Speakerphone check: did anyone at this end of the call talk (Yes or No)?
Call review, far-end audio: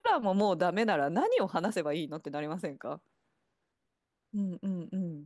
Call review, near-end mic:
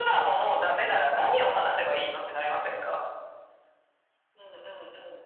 No